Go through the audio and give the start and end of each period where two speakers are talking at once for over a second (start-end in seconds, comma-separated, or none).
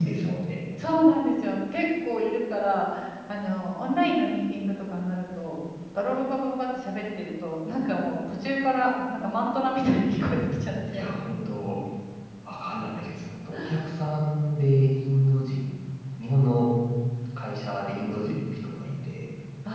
none